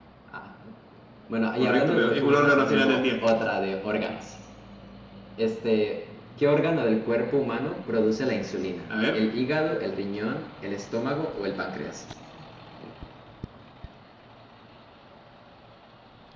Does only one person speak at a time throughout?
No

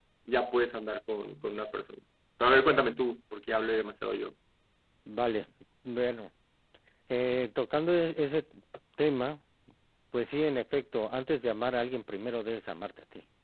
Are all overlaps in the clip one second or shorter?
Yes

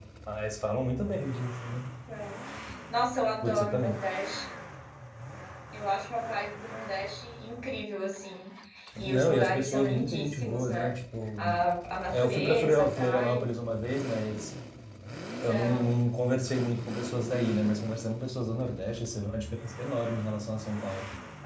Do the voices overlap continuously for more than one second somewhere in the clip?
Yes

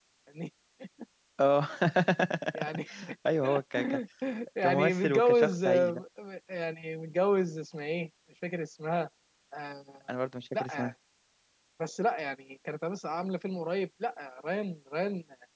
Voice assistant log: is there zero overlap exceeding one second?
No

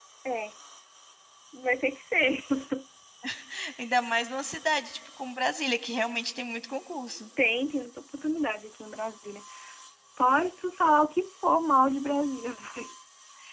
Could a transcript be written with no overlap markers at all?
Yes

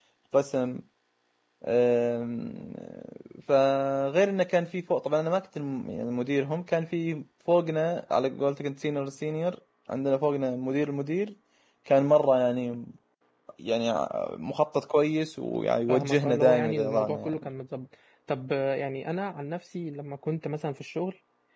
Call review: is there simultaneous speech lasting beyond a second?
Yes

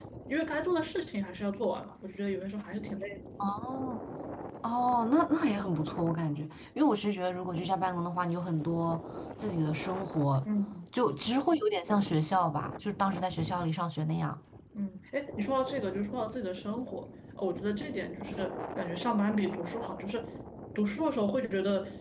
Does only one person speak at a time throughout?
Yes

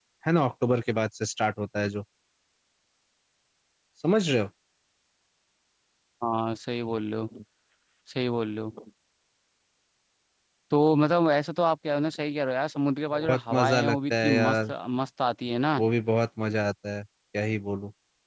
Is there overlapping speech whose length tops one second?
Yes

